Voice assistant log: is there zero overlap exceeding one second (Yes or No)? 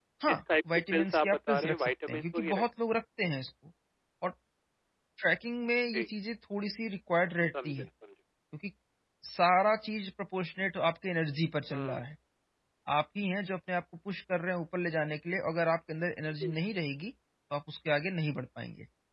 No